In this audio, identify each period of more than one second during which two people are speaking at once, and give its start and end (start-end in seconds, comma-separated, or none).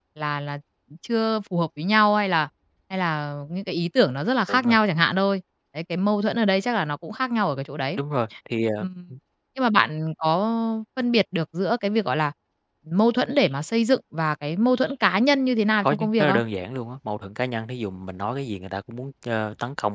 none